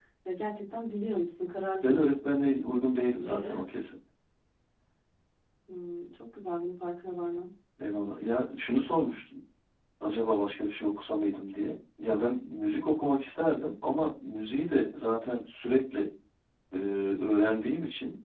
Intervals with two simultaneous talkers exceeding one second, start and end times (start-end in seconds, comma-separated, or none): none